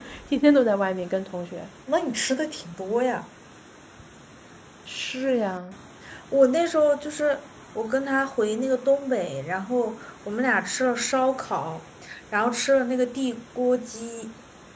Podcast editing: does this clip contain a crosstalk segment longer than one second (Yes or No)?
No